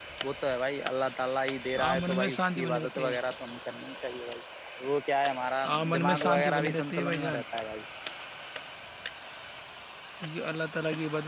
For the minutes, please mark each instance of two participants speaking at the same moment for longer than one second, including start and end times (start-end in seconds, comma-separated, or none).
1.8-3.1, 5.6-7.4